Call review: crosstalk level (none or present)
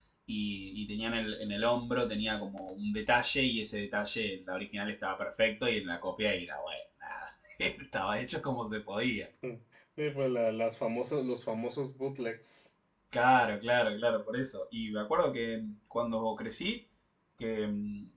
none